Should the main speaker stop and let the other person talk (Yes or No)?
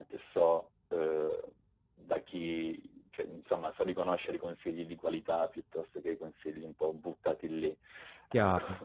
Yes